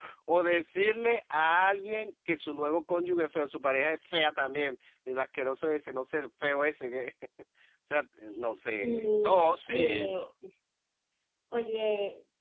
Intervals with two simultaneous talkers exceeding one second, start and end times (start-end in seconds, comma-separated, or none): 8.8-10.2